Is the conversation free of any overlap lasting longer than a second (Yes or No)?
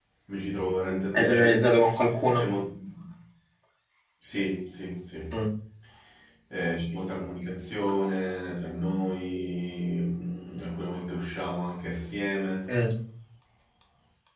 Yes